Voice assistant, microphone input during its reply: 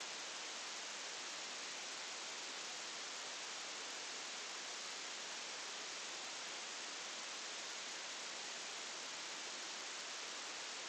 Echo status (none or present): none